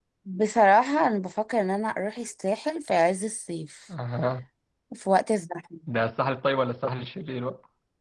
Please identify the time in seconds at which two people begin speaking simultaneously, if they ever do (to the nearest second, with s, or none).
none